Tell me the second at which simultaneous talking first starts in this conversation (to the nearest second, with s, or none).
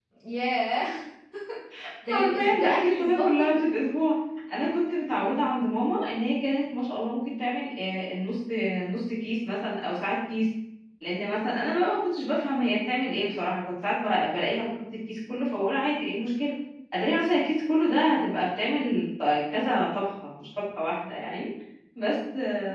2 s